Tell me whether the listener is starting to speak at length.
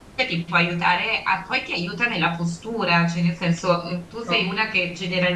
No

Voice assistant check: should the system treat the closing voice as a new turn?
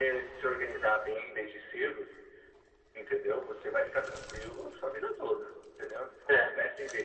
No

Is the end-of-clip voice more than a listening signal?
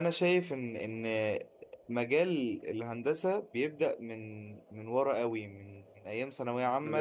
No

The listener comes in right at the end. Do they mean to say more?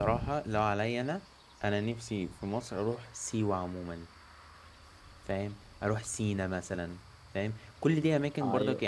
No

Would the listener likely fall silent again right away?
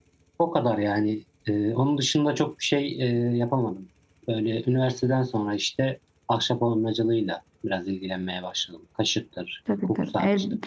No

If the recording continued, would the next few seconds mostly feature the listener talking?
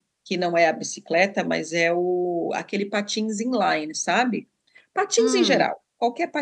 No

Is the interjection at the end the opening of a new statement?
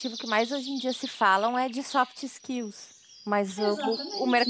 No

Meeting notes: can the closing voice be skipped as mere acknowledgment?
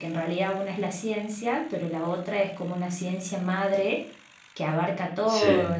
Yes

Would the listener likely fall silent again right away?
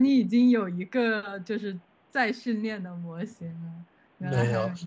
No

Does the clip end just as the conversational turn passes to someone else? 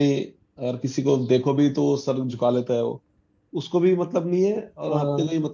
No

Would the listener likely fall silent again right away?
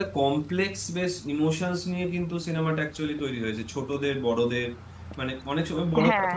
Yes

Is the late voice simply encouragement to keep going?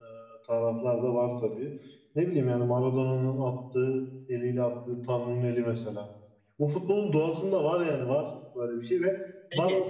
Yes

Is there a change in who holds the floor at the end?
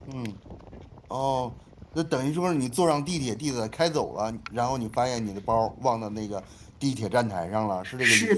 Yes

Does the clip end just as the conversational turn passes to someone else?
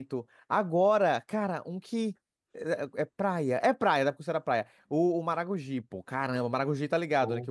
No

